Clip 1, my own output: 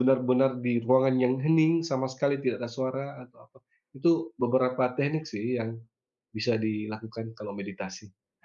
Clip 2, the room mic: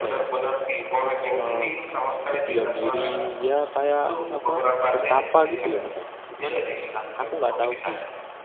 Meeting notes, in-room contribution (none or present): present